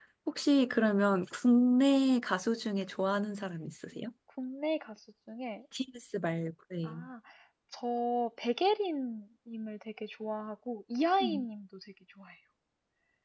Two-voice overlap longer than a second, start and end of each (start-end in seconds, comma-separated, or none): none